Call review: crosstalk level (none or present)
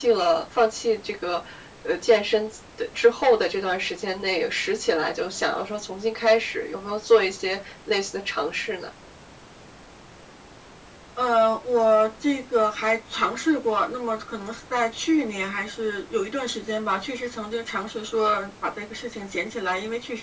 none